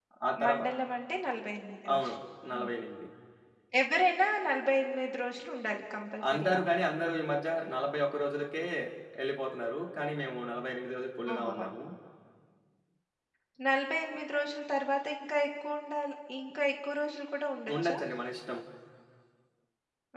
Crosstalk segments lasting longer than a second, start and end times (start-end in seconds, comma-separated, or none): none